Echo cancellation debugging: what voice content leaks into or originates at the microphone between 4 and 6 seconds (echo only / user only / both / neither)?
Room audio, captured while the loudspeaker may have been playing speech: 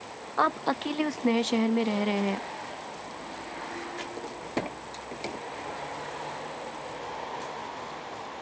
neither